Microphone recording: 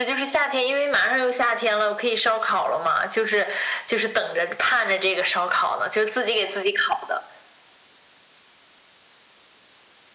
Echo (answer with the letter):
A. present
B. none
A